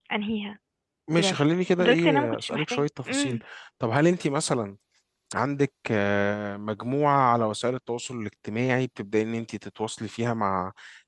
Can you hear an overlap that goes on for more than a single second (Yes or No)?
Yes